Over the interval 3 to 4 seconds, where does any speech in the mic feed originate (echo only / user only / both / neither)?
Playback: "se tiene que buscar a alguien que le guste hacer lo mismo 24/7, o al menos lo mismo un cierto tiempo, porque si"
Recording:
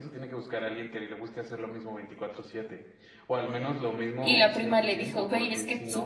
echo only